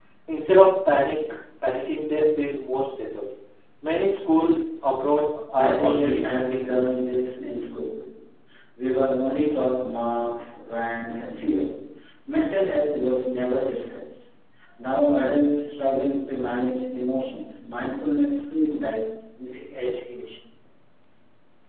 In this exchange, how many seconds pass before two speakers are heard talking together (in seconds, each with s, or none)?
5.5 s